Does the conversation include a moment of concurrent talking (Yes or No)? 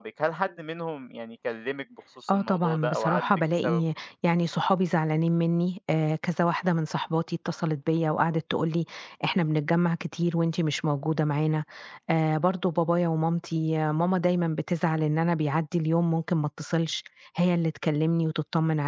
Yes